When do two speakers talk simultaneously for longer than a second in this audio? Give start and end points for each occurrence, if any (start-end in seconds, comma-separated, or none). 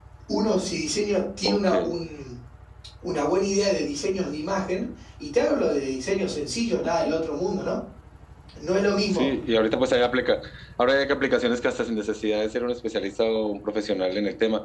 none